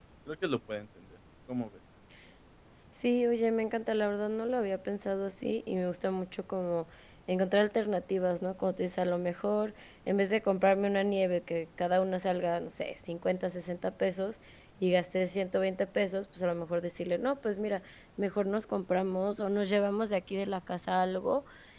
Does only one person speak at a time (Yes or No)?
Yes